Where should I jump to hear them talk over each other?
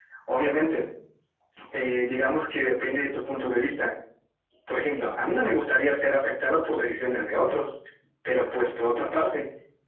none

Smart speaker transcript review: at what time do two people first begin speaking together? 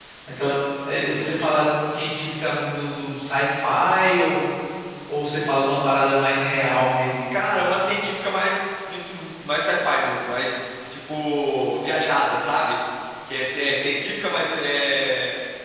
none

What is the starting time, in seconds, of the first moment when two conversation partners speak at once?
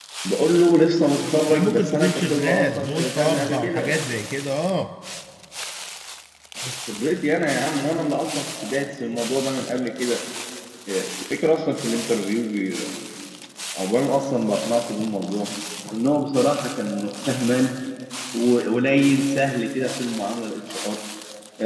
1.5 s

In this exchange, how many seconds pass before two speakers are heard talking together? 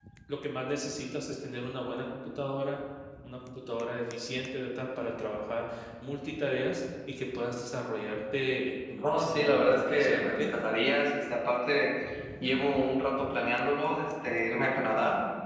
9.0 s

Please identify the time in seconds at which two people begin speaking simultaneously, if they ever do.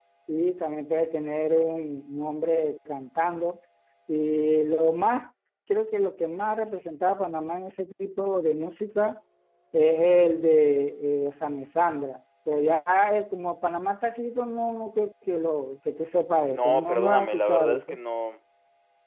16.5 s

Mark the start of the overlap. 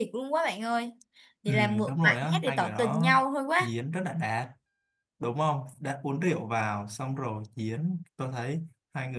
1.5 s

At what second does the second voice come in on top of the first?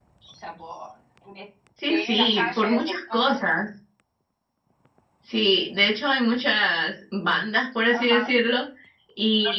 1.9 s

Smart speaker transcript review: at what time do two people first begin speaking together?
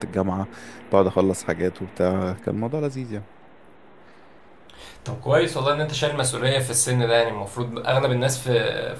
none

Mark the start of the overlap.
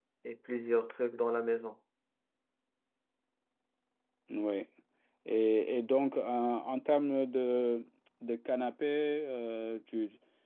none

